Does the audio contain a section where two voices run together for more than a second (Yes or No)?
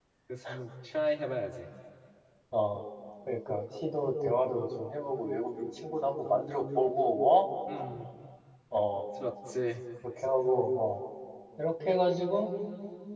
No